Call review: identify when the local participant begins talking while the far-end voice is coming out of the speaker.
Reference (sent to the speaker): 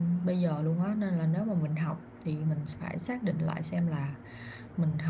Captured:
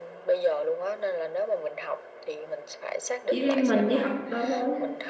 3.3 s

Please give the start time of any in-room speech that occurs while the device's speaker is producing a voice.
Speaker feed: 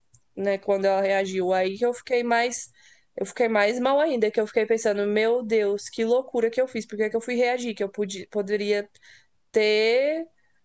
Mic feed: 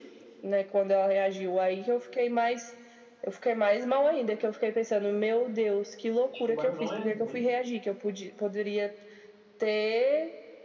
6.3 s

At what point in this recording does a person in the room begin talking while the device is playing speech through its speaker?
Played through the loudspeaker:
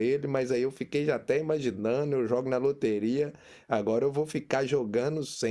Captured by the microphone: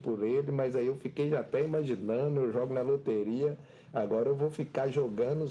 none

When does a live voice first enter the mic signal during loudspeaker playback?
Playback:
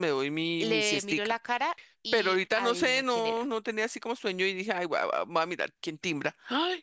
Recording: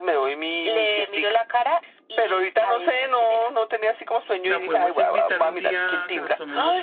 4.4 s

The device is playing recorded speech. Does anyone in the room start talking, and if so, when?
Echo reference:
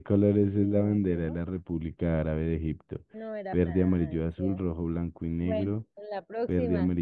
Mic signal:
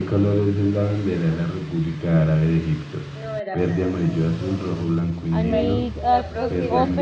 5.3 s

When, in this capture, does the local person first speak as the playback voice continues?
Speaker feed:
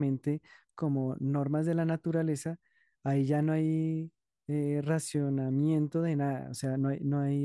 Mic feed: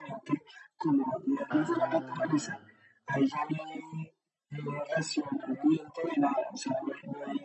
1.5 s

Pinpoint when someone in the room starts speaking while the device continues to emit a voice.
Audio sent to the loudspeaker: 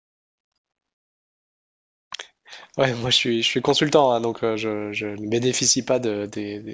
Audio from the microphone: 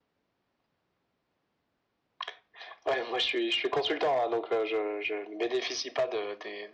none

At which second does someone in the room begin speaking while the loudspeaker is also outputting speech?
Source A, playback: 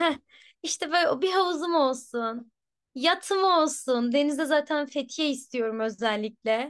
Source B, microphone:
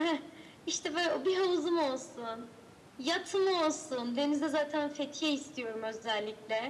none

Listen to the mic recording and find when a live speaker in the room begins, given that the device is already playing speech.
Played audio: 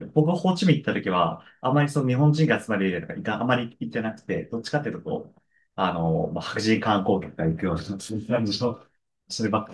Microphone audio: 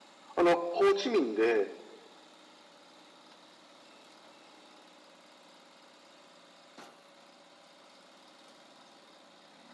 0.4 s

